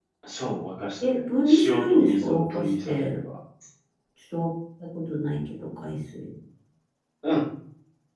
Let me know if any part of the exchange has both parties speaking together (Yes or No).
Yes